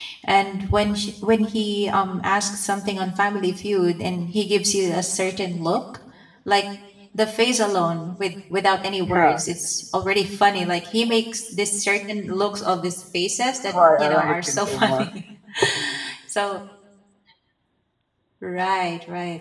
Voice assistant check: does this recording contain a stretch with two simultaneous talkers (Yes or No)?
Yes